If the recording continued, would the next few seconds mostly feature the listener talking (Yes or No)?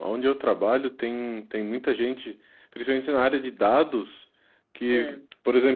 No